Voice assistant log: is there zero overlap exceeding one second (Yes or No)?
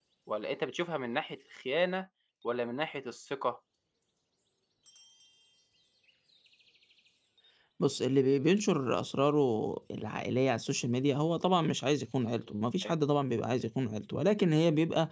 Yes